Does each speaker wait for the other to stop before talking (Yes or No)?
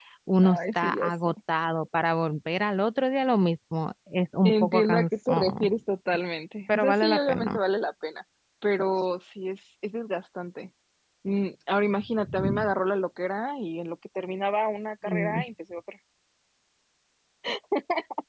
No